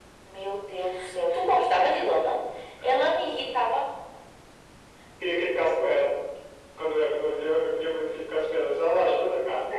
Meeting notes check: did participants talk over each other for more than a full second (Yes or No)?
No